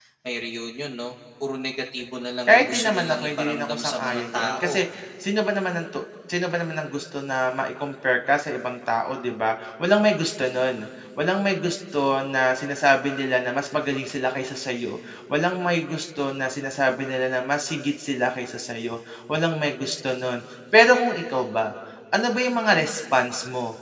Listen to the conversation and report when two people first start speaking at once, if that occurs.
2.5 s

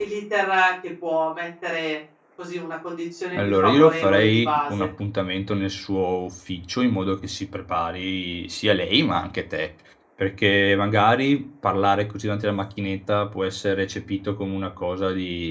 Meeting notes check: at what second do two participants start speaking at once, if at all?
3.3 s

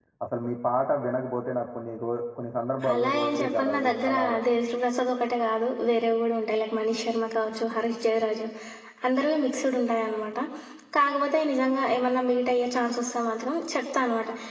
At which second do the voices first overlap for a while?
2.8 s

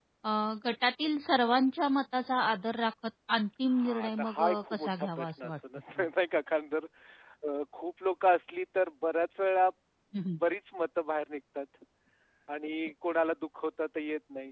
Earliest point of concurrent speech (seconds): 3.7 s

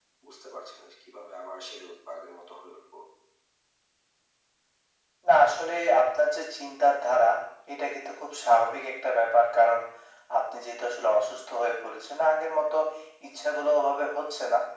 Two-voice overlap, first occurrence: none

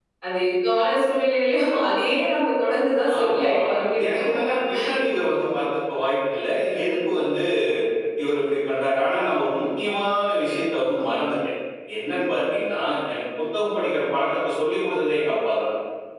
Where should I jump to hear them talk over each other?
3.0 s

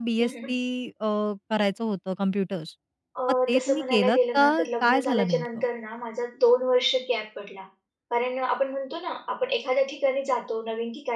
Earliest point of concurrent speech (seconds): 3.5 s

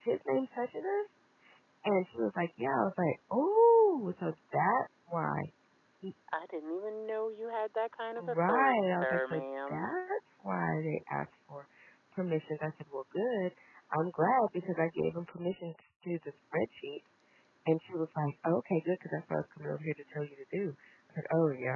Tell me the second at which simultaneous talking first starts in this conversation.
8.2 s

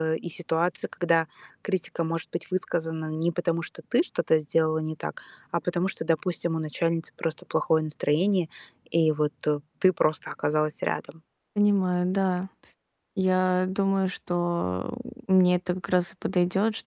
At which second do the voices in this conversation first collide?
none

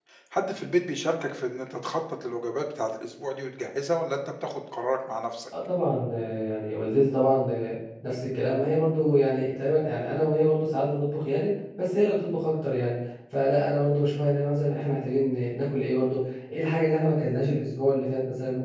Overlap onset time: none

